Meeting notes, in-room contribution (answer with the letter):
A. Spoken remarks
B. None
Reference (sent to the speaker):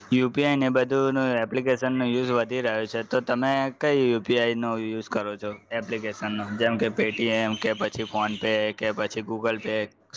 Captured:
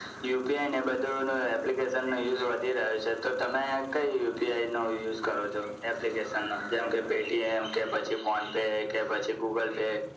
B